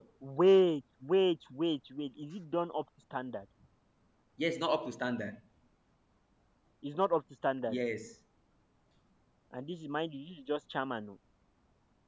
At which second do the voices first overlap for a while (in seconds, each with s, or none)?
none